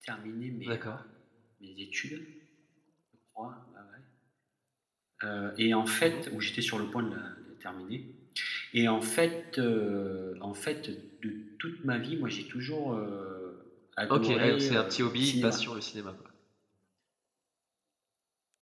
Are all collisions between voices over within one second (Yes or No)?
No